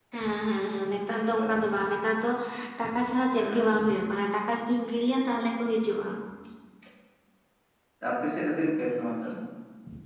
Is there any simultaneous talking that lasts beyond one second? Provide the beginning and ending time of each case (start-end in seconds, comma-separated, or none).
none